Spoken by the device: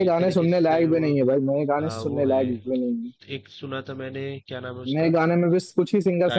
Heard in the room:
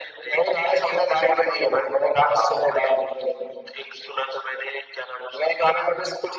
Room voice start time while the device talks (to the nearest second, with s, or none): none